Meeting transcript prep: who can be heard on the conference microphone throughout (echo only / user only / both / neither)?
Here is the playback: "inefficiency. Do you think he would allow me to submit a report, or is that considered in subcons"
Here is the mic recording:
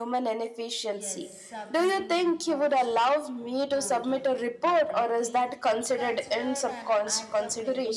both